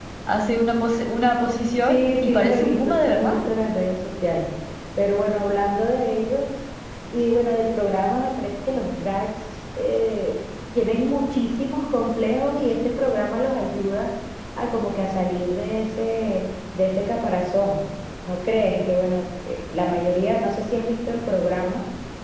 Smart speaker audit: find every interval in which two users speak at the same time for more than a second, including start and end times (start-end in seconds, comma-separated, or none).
1.8-3.4